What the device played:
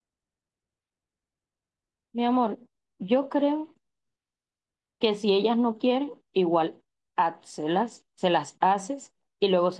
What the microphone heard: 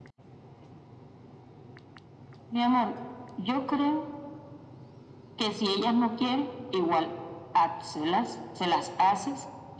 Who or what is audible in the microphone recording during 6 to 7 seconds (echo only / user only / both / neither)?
echo only